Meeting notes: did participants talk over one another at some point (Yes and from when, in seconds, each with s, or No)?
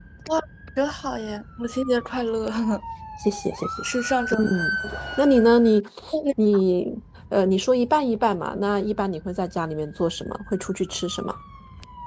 No